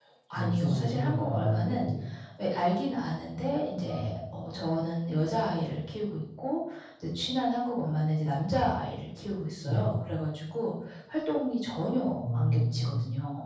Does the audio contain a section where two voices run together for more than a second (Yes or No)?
Yes